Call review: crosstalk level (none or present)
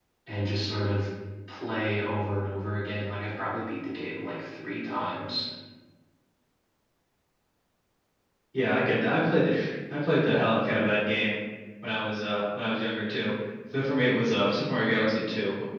none